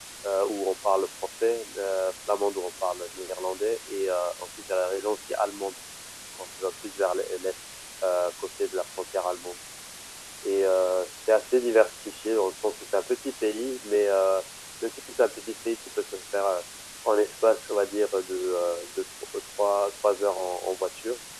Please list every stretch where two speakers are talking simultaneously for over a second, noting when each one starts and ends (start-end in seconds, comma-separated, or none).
none